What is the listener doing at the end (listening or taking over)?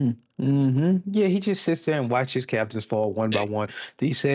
listening